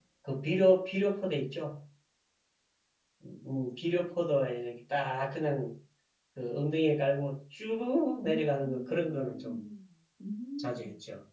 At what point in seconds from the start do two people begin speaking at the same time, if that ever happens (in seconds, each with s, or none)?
8.2 s